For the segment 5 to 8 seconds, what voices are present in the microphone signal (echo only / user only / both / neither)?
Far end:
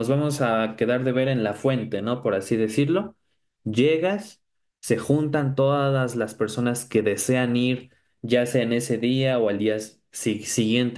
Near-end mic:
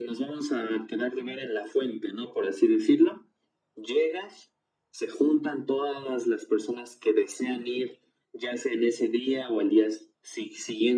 echo only